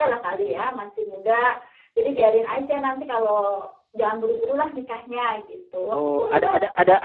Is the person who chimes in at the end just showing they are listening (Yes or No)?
No